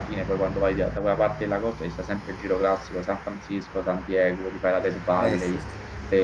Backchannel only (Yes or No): Yes